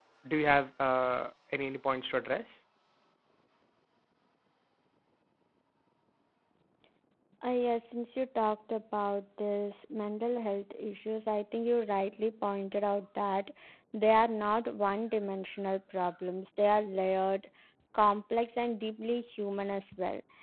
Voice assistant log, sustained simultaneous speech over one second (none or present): none